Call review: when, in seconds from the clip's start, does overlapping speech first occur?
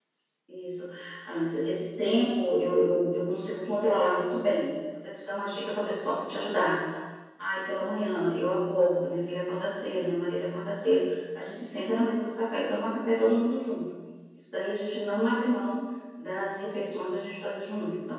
none

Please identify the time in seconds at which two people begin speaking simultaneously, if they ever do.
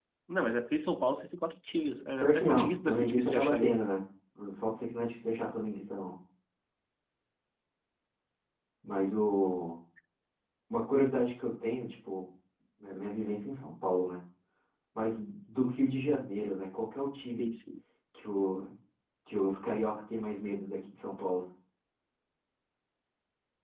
2.2 s

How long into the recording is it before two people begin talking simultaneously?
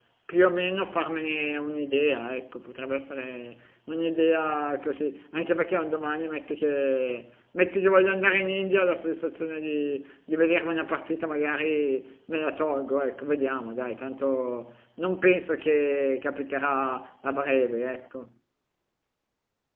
none

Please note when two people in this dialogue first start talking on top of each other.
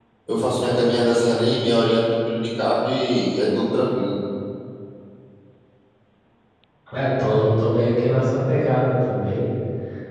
none

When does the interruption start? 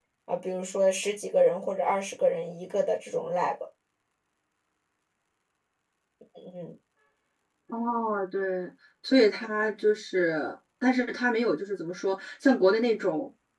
none

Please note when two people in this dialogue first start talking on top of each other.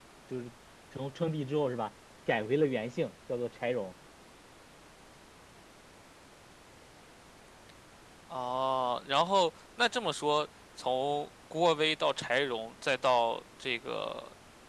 none

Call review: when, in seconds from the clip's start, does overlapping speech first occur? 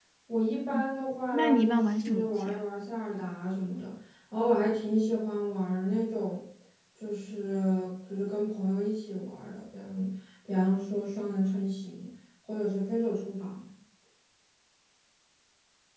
1.3 s

